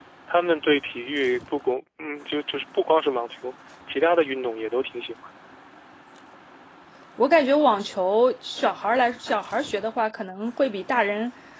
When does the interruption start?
none

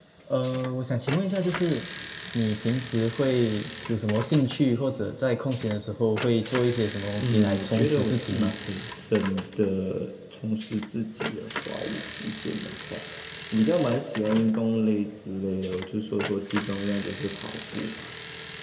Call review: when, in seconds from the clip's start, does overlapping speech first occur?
7.2 s

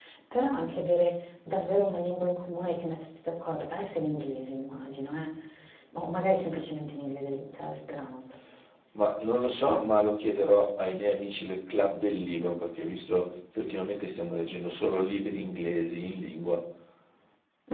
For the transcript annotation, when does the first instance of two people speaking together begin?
none

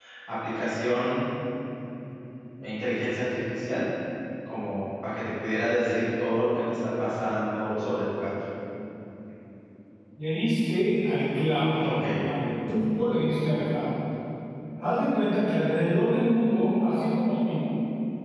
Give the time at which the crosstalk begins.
none

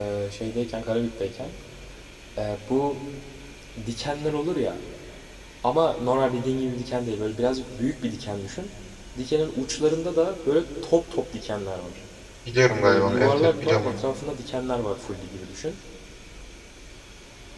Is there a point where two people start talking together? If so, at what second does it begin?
12.7 s

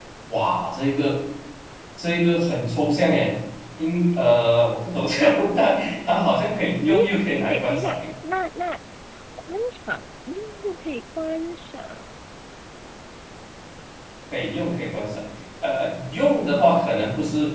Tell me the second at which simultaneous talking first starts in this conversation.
6.8 s

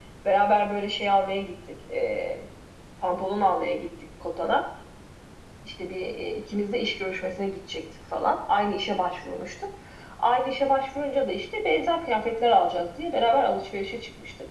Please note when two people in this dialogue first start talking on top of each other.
none

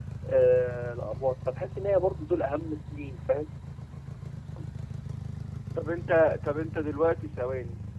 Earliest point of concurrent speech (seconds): none

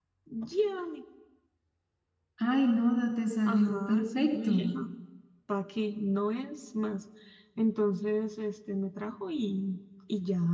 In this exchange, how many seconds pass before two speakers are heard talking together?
3.4 s

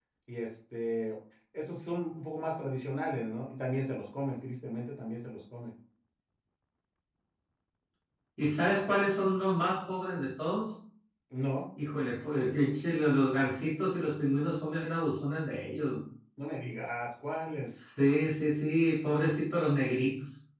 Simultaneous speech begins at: none

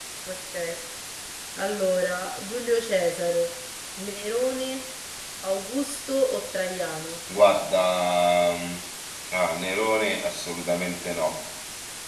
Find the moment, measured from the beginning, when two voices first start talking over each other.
none

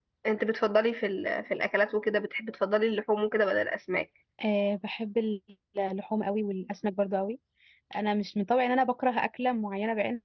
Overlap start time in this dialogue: none

